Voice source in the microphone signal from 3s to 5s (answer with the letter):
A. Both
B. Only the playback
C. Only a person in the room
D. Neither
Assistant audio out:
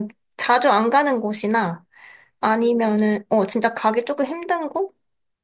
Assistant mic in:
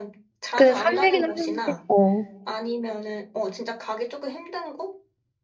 B